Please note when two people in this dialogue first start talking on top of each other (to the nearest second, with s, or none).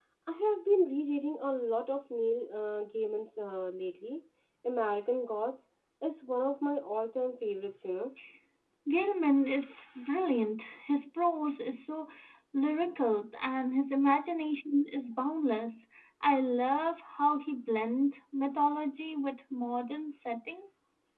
none